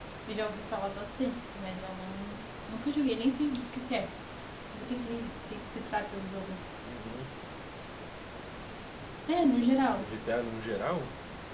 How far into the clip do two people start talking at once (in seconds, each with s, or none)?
none